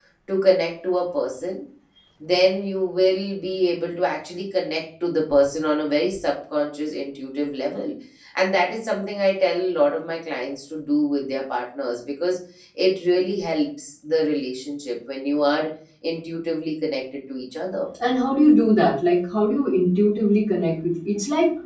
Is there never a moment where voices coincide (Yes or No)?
Yes